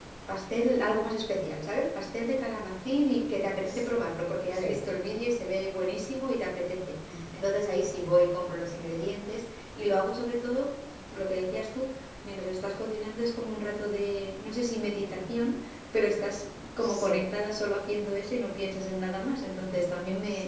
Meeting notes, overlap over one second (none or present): none